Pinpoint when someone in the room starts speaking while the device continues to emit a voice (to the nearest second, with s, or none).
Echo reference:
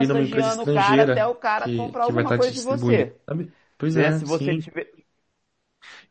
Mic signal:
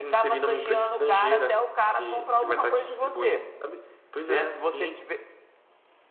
none